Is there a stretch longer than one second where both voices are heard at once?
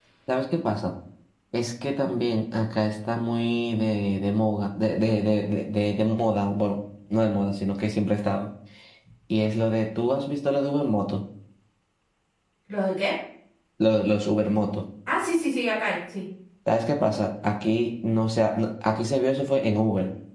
No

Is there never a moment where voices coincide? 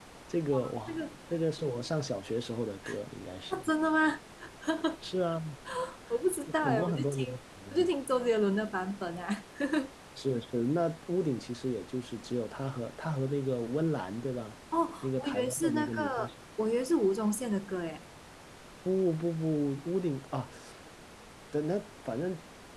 No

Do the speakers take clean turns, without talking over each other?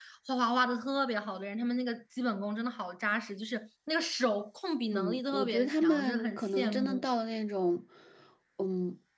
No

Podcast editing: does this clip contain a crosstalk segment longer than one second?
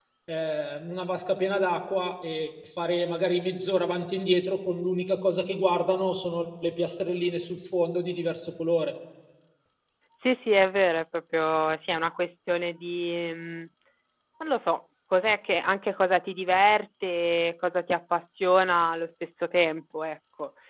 No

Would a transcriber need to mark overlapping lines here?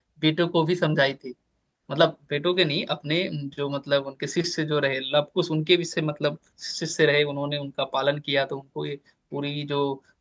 No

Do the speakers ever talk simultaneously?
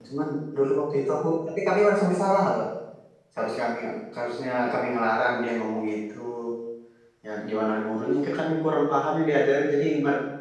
No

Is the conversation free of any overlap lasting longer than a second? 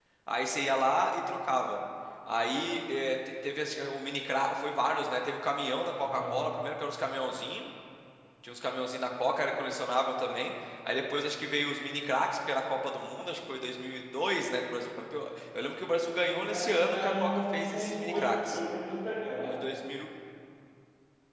No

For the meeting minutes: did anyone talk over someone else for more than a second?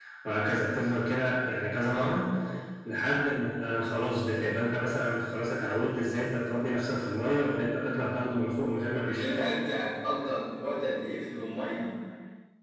No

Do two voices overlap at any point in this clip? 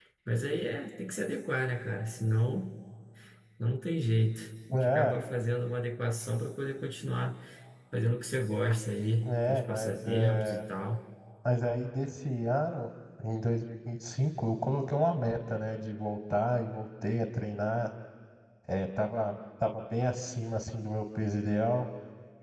Yes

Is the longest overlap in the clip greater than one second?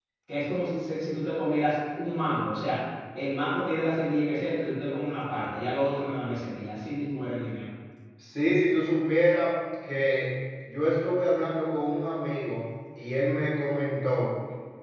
No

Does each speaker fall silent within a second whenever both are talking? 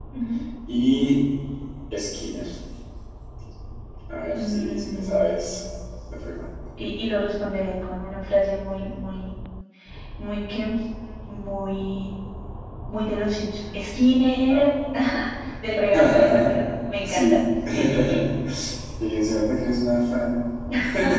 No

